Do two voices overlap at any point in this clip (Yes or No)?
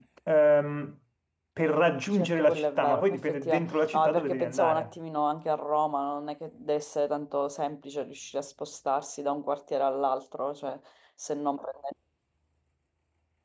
Yes